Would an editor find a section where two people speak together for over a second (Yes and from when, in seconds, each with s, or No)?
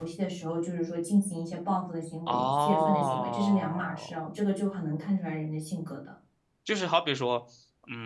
Yes, from 2.3 s